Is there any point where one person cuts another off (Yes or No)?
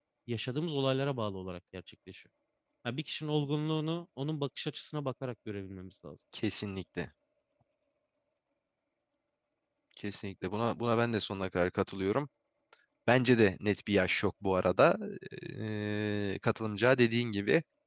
No